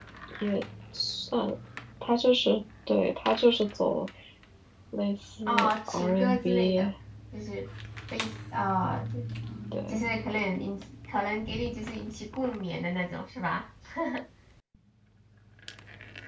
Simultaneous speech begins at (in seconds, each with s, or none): 5.5 s